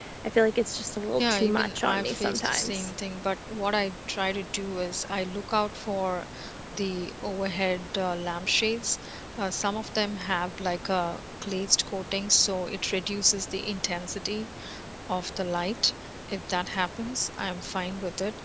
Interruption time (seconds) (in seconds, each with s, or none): 1.2 s